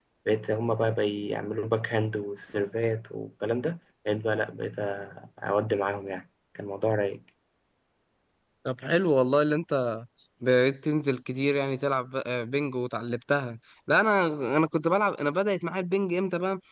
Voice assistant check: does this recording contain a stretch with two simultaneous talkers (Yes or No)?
No